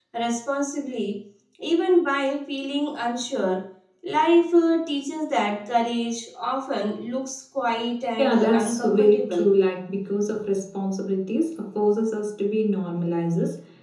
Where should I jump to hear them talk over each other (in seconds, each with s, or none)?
8.2 s